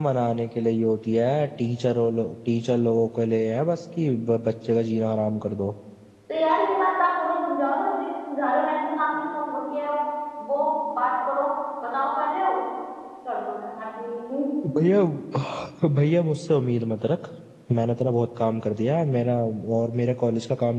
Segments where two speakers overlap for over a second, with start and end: none

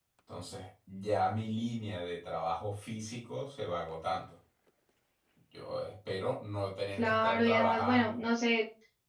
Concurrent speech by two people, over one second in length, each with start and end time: 7.0-8.2

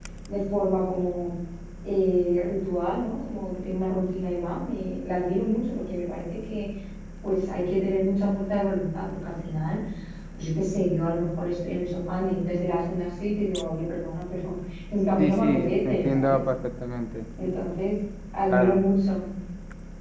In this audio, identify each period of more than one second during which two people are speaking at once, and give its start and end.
15.2-16.4

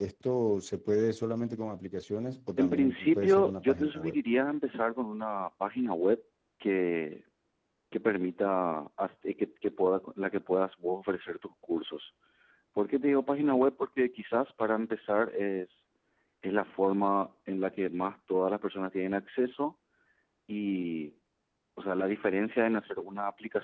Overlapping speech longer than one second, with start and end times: 2.6-4.2

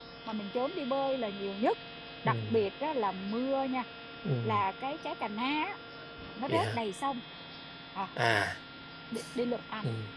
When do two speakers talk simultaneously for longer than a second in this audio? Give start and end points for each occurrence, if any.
none

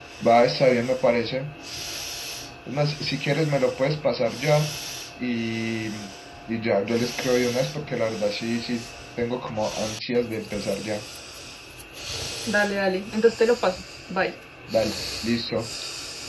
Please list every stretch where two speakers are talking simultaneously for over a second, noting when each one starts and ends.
none

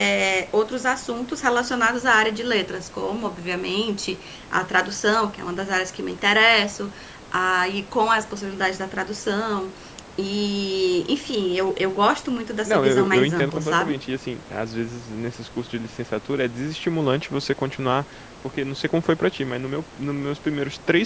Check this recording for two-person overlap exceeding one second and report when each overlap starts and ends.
12.7-14.0

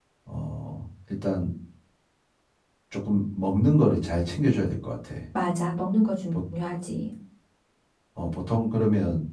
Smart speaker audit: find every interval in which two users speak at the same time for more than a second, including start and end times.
none

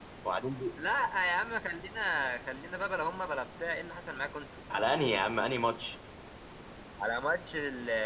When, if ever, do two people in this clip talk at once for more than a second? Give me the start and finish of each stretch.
none

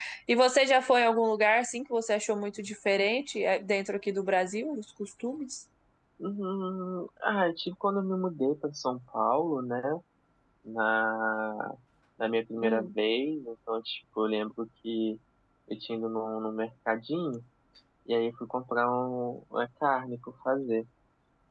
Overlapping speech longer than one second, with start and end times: none

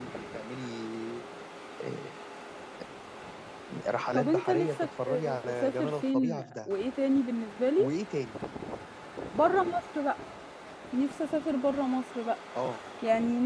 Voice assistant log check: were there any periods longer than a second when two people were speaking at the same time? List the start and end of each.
4.1-6.7

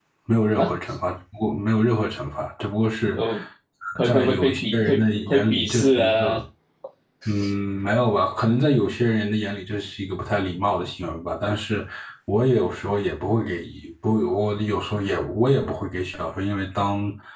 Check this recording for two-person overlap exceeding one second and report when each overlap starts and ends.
4.0-6.4

